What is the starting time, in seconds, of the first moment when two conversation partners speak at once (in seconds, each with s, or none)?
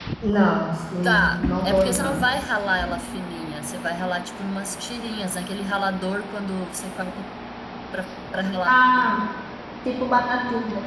1.0 s